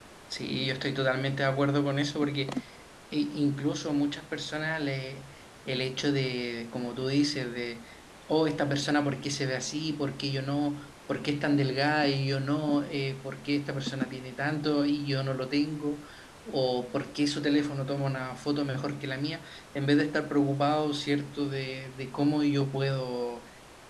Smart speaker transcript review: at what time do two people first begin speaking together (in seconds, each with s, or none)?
none